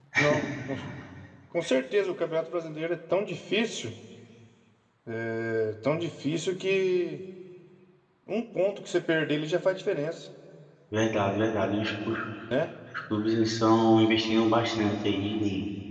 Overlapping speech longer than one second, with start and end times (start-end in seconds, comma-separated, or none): none